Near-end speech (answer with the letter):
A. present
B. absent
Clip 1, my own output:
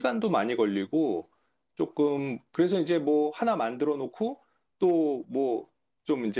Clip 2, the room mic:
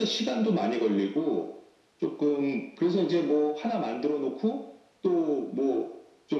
B